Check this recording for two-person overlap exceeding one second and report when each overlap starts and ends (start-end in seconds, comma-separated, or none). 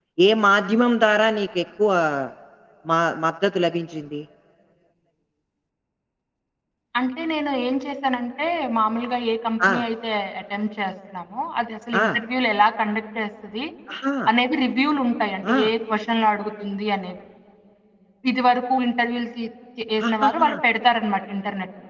none